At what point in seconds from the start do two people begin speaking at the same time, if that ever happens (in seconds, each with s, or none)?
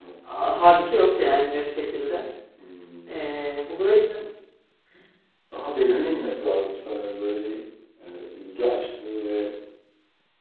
none